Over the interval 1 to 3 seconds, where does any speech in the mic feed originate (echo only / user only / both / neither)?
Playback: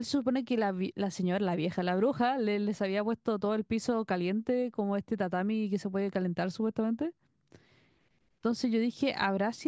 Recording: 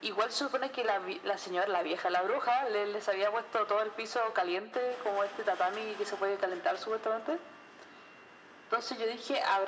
echo only